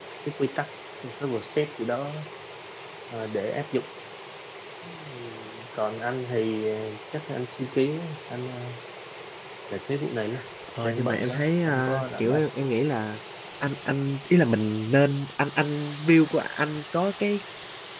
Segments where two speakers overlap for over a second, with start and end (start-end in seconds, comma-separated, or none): 10.8-12.4